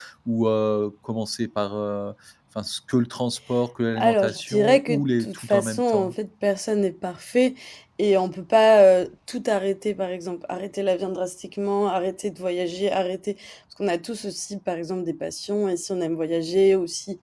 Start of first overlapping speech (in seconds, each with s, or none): 4.0 s